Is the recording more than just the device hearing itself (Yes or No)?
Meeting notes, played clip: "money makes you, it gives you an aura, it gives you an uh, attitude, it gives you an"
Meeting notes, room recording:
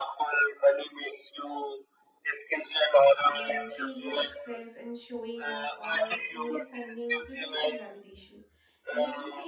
Yes